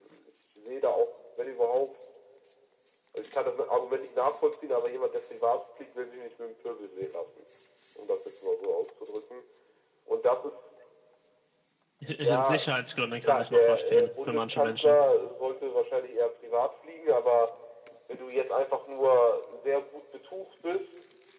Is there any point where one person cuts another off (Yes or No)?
Yes